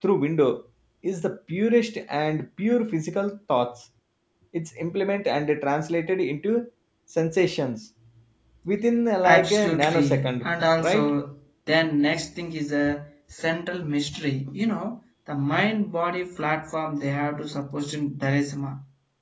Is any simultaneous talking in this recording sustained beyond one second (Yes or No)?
Yes